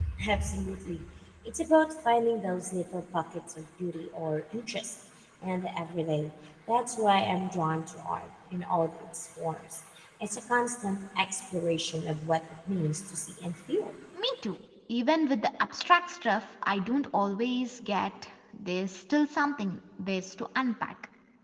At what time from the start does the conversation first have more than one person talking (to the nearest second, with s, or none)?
none